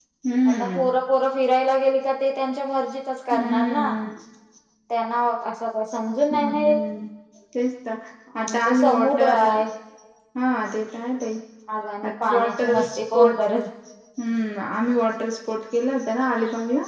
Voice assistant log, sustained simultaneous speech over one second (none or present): present